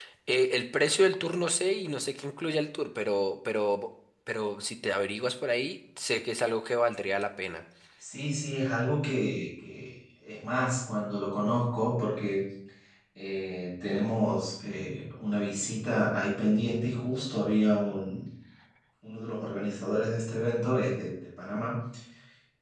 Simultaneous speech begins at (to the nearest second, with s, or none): none